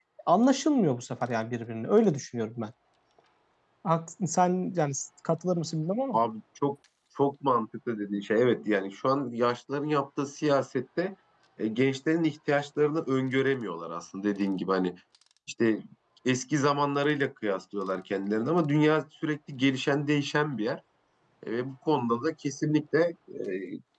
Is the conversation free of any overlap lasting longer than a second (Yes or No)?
Yes